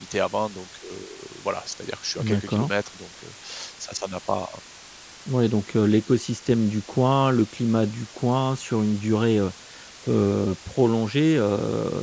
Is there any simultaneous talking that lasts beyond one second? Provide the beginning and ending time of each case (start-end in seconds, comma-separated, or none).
none